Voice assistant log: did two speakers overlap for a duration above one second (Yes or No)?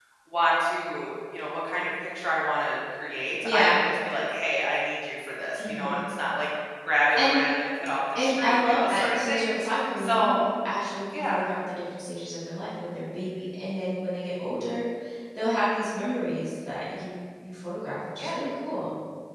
Yes